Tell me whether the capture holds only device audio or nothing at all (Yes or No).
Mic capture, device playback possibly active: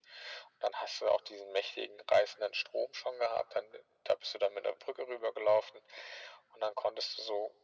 Yes